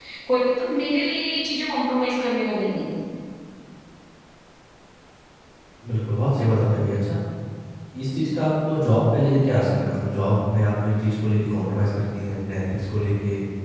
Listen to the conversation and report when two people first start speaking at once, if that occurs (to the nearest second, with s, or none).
none